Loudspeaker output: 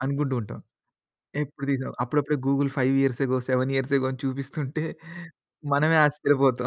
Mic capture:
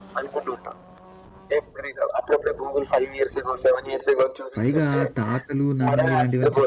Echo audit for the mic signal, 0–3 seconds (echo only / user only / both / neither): echo only